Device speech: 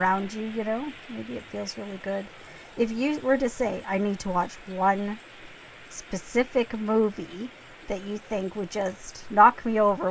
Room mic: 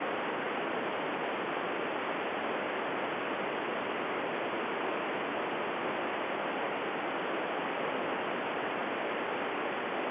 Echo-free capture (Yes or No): Yes